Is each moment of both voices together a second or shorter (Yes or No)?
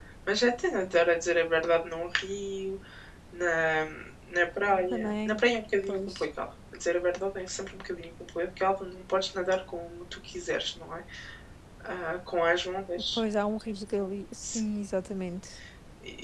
Yes